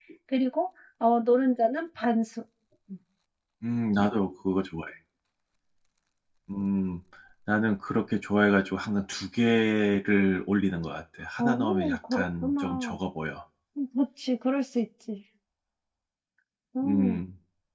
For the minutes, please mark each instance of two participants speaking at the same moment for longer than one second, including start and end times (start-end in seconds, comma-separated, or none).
11.4-12.9